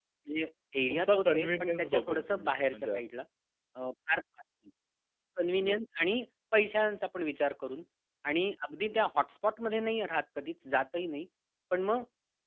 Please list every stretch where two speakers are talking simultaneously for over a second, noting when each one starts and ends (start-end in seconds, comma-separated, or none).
0.9-3.0